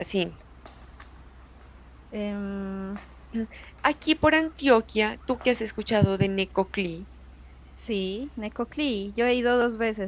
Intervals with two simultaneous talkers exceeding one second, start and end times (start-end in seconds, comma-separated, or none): none